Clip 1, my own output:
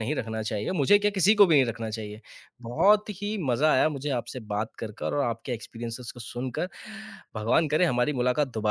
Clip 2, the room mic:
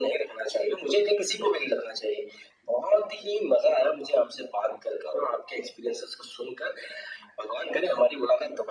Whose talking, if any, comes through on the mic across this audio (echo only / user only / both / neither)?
echo only